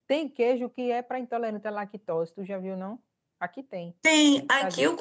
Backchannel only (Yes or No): No